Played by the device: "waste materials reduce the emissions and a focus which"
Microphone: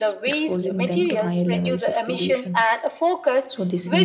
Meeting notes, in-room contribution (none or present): present